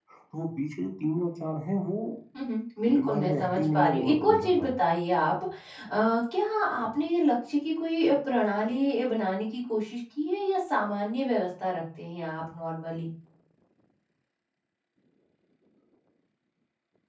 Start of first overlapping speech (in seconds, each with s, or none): 2.9 s